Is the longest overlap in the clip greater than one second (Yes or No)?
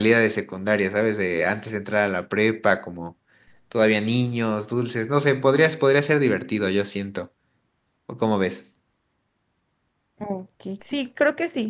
No